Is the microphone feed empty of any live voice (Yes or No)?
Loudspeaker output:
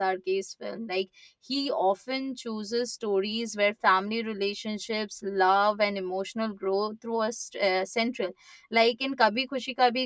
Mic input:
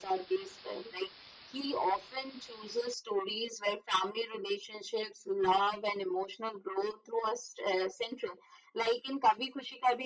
Yes